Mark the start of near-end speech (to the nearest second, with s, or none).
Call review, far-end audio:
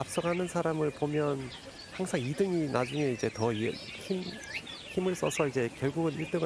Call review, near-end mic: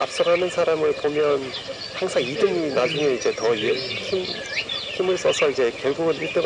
2 s